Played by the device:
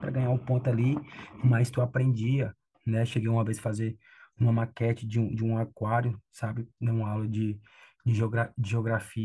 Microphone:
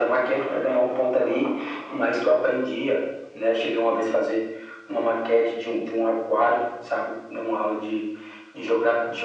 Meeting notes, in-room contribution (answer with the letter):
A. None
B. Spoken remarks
A